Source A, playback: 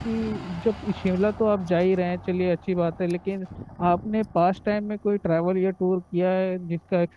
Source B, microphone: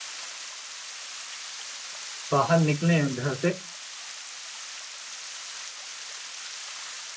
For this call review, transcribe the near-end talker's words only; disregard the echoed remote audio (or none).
बाहर निकले घर से